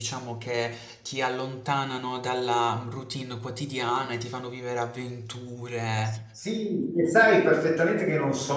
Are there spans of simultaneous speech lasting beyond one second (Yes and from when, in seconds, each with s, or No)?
No